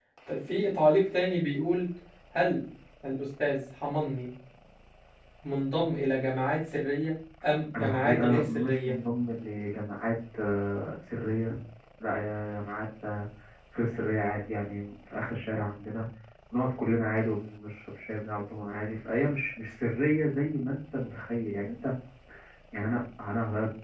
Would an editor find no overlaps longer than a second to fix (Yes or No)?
No